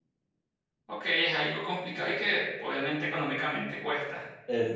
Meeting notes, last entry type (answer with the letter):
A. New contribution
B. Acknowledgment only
A